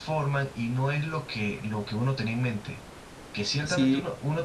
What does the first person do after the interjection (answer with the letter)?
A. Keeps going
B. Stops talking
A